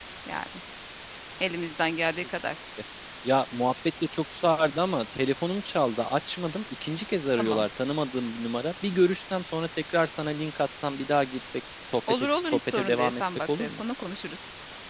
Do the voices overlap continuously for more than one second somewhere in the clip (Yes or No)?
Yes